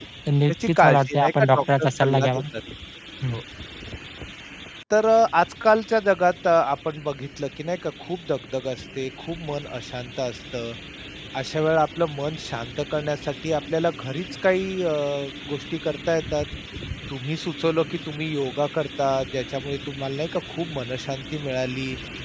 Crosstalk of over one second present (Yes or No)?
Yes